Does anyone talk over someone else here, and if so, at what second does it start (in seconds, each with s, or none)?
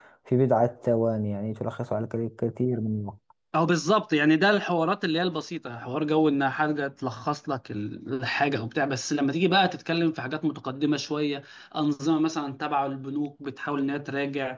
none